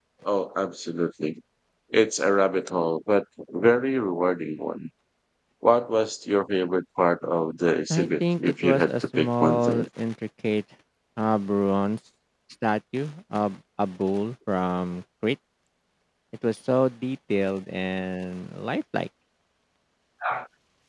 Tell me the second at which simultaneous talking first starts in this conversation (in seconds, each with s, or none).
7.9 s